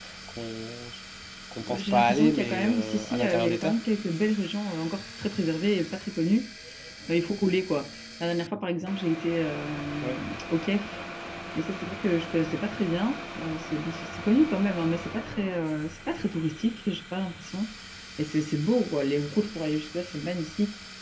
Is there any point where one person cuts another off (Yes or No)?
Yes